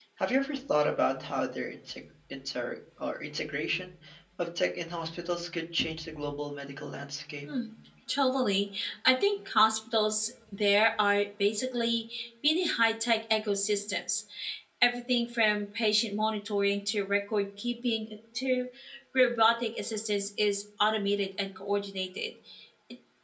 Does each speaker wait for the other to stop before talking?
Yes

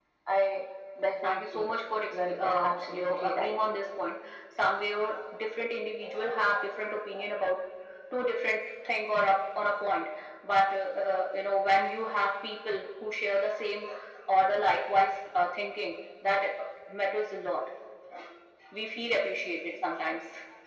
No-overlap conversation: No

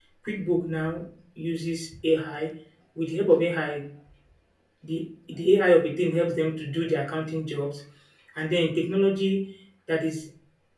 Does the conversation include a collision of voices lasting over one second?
No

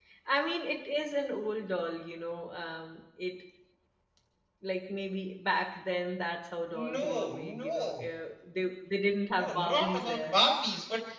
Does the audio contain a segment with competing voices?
Yes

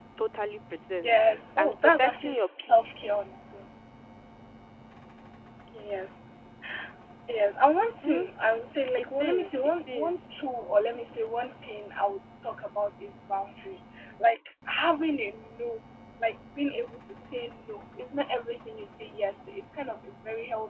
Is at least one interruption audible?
Yes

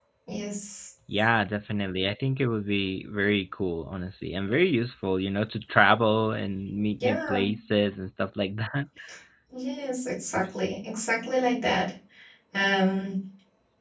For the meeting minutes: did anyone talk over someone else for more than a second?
No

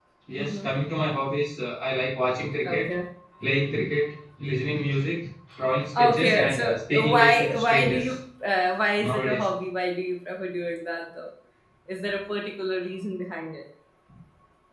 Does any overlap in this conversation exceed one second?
Yes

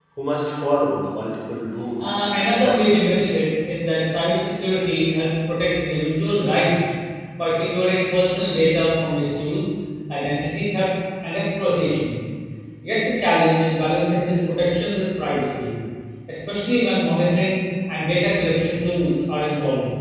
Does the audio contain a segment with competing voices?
Yes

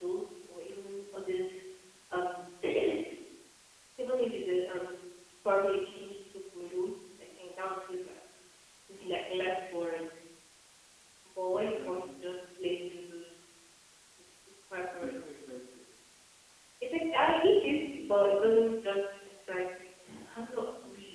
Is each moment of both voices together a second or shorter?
No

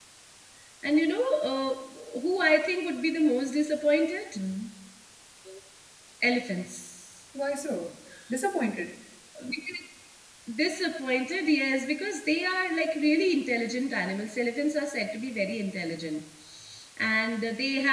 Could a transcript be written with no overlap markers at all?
Yes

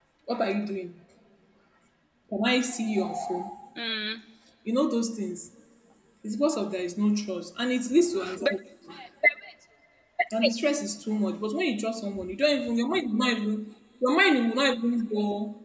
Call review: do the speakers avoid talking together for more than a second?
Yes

